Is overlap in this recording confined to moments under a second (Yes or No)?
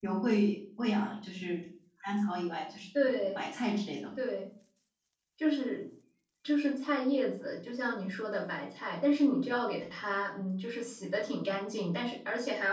Yes